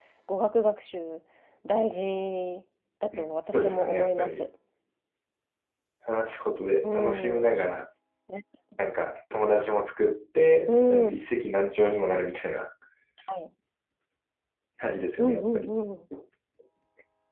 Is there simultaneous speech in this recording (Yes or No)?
Yes